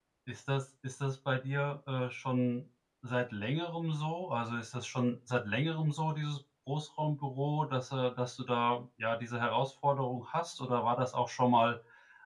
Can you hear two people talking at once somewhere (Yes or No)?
No